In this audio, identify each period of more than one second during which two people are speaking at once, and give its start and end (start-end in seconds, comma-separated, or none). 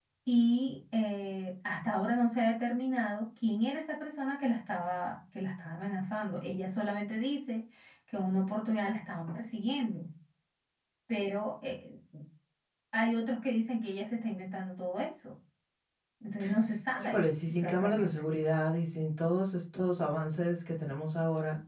17.0-18.2